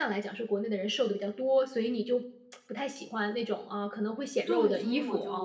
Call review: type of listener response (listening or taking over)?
taking over